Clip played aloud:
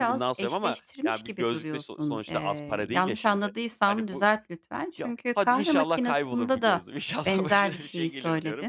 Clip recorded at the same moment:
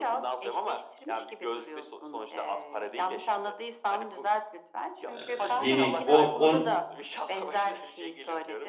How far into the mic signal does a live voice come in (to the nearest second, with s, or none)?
5 s